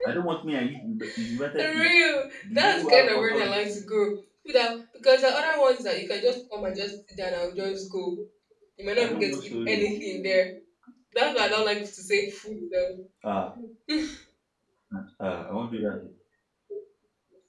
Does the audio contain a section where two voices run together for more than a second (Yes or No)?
Yes